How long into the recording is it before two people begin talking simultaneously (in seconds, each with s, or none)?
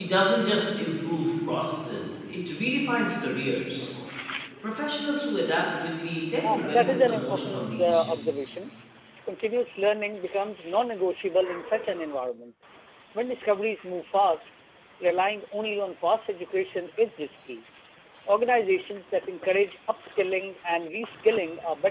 6.4 s